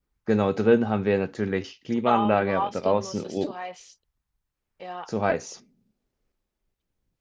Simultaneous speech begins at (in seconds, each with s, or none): 2.1 s